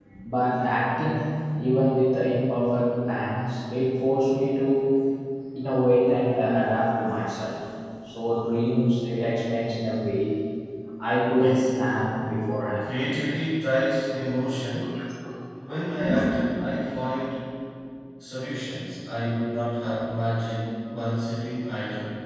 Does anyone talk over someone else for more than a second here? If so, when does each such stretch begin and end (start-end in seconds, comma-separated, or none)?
none